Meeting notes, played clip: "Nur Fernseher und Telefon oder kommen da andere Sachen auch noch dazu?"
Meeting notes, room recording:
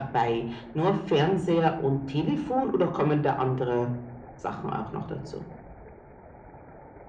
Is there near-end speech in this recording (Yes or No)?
No